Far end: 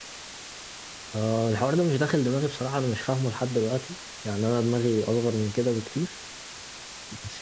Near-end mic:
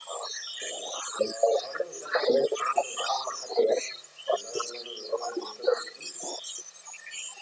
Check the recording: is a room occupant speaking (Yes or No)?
No